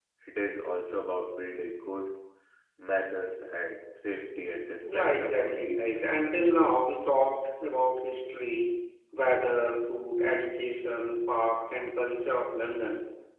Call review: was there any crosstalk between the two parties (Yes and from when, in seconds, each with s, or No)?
Yes, from 4.8 s